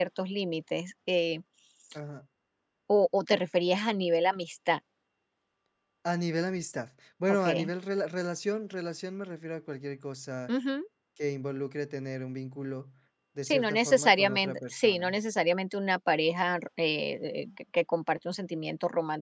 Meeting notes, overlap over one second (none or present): present